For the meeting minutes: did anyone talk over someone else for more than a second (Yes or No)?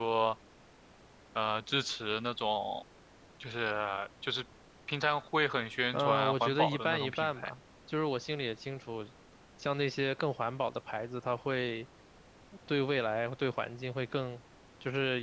Yes